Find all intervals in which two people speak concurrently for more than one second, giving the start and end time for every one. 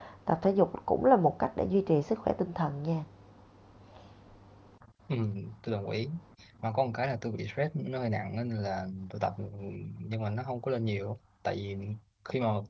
none

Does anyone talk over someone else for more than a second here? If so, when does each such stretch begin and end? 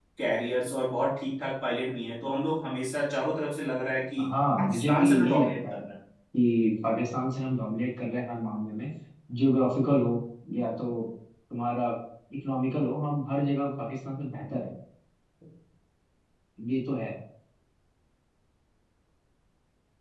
4.6-5.8

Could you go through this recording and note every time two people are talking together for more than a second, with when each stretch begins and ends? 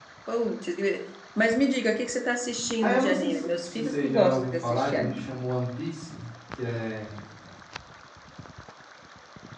2.8-5.2

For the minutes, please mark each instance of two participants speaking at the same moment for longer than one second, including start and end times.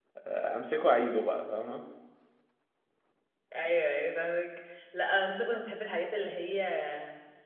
none

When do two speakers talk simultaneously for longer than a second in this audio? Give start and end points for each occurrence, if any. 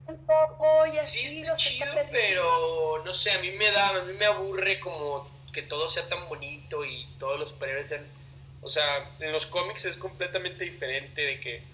1.0-2.6

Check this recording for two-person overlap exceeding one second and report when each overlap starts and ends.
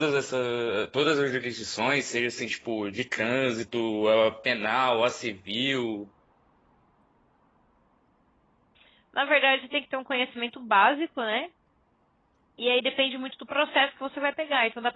none

